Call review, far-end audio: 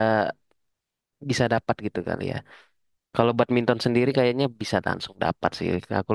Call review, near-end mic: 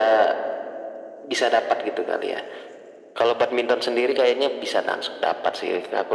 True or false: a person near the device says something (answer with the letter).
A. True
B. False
B